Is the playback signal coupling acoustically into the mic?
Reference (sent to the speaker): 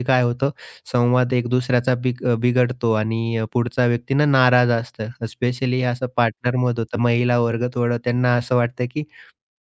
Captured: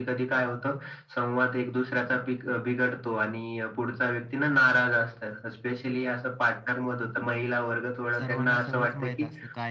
Yes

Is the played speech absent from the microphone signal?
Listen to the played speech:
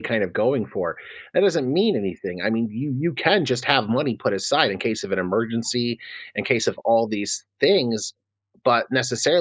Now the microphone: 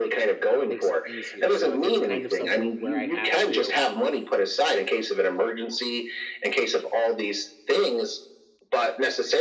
No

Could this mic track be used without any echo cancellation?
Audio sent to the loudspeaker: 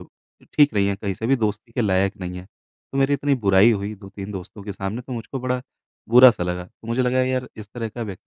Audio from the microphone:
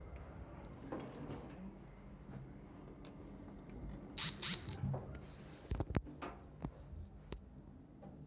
Yes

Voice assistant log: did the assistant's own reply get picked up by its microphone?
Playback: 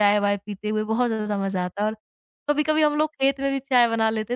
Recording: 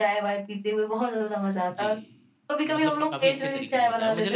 Yes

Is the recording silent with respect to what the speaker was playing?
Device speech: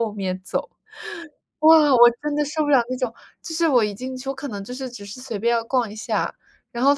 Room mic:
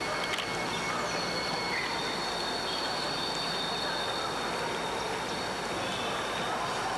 Yes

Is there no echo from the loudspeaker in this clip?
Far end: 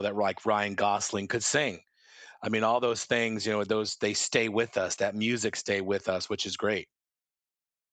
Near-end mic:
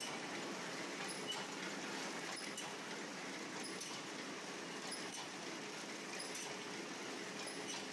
Yes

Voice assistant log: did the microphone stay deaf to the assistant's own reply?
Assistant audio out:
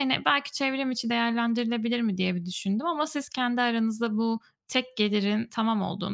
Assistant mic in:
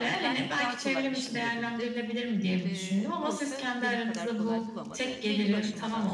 No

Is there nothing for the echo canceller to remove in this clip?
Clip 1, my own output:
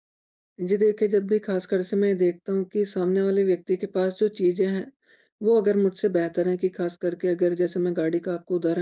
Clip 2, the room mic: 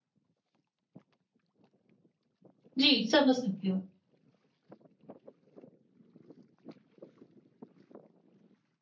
Yes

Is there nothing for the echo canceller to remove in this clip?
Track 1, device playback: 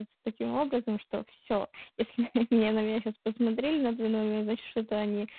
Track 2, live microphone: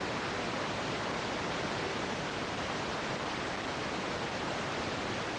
Yes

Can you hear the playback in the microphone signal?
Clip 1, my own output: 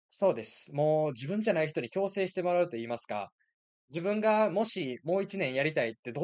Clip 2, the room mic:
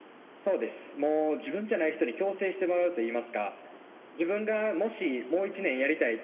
Yes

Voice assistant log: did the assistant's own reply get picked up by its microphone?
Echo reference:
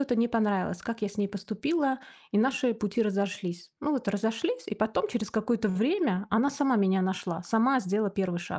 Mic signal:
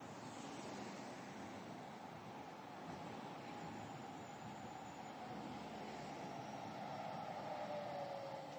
No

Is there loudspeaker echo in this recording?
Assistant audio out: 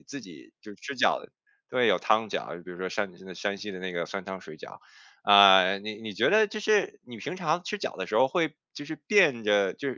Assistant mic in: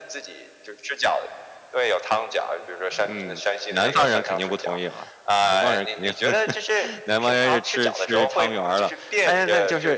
Yes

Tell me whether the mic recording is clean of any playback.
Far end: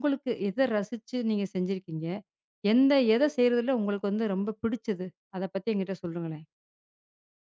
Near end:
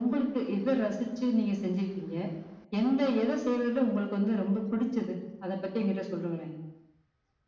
No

